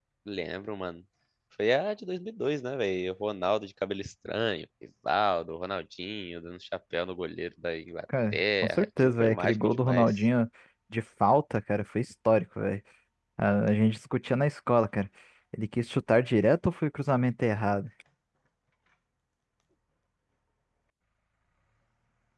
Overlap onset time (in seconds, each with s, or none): 8.3 s